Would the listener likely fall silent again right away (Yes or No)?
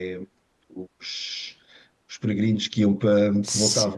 Yes